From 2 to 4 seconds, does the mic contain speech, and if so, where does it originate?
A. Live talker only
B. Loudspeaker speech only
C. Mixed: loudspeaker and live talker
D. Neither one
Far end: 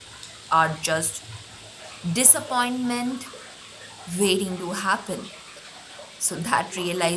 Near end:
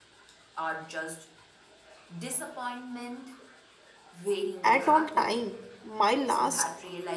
B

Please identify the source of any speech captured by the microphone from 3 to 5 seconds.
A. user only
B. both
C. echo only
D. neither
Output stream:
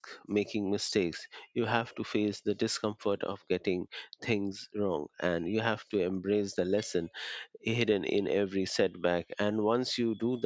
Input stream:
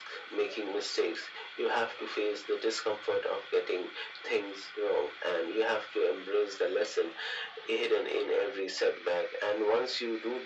C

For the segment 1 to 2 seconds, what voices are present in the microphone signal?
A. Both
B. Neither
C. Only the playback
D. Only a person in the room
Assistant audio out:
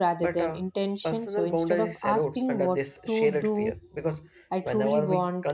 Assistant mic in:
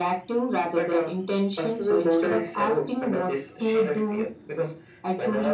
C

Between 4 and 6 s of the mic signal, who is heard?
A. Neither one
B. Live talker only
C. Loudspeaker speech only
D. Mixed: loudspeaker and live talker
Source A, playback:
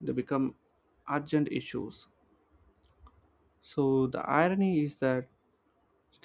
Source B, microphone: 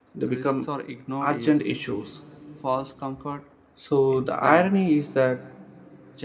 D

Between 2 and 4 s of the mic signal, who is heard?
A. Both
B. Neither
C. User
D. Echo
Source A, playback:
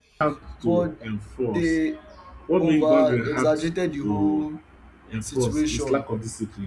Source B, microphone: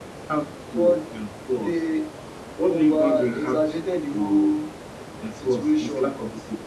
D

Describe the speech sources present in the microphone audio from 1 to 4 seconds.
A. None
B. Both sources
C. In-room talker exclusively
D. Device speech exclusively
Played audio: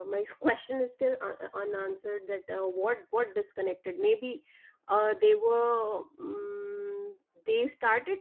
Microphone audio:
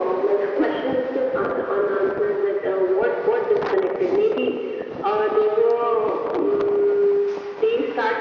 D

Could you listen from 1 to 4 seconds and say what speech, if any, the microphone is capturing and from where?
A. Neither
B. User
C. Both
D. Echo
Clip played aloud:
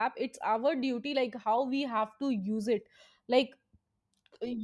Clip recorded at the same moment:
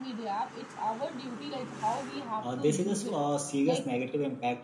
C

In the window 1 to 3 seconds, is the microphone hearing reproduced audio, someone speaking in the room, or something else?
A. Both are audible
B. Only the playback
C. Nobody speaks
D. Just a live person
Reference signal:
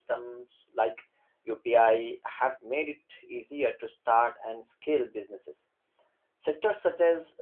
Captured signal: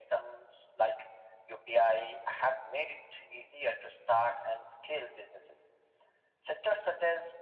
B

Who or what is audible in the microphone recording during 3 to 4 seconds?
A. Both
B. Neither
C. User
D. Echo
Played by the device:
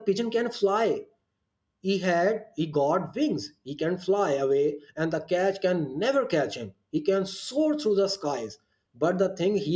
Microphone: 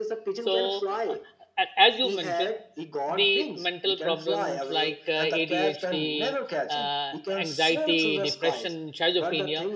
A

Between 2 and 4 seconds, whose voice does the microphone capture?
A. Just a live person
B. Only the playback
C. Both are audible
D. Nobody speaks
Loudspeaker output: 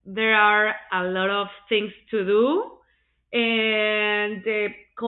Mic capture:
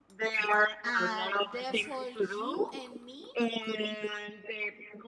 C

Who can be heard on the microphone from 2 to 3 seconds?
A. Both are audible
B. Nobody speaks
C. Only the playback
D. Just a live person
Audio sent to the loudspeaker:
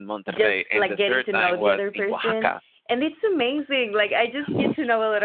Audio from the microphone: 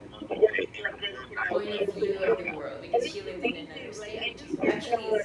A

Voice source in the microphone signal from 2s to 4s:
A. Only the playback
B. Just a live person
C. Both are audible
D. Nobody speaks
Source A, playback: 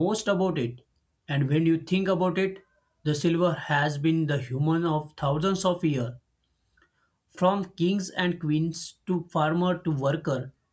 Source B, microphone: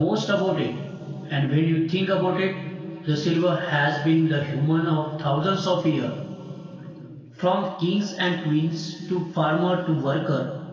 A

